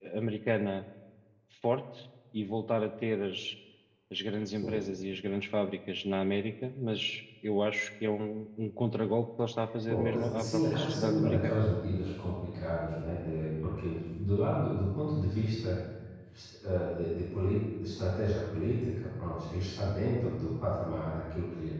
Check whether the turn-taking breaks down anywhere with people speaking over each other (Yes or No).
Yes